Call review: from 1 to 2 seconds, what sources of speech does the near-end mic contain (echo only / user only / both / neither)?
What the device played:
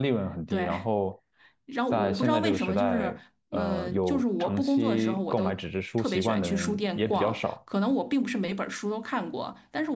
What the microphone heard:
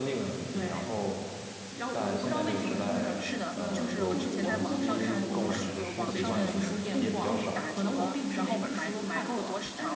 echo only